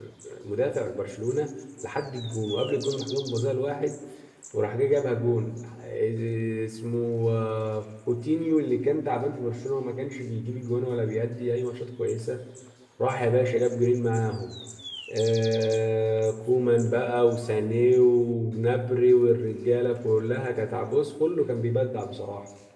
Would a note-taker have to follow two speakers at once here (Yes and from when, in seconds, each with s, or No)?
No